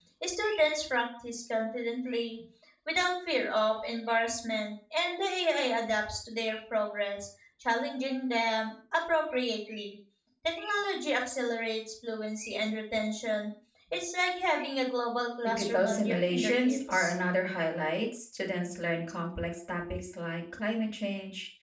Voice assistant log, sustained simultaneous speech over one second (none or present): present